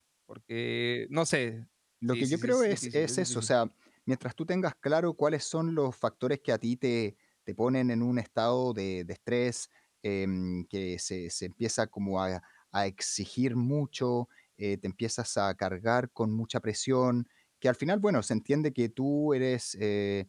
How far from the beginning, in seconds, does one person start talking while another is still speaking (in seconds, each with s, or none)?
2.1 s